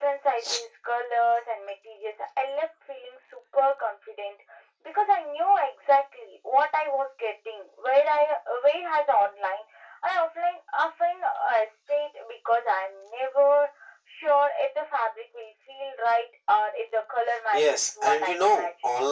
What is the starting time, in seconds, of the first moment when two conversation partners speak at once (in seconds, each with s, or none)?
17.5 s